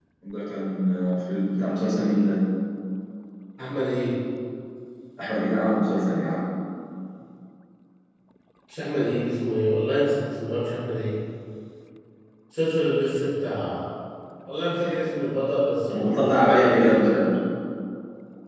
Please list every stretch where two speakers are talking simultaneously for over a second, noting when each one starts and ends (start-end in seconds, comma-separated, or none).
15.9-17.2